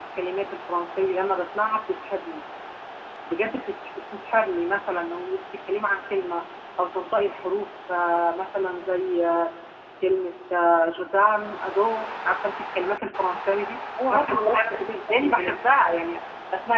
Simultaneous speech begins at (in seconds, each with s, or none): 14.0 s